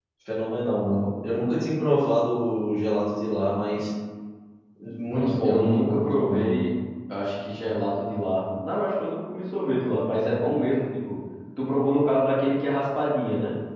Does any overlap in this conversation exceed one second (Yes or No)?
Yes